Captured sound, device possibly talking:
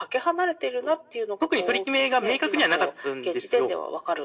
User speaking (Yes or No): No